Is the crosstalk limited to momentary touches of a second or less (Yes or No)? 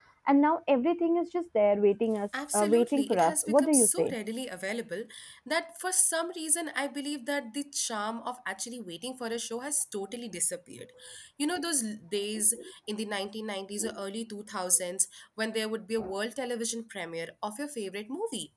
No